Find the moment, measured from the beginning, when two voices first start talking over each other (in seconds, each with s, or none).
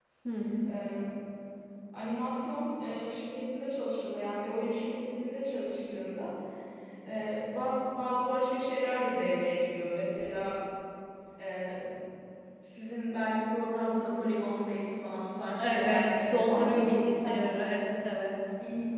15.6 s